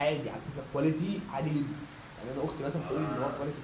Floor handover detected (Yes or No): No